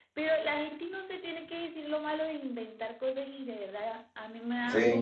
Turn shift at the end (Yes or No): No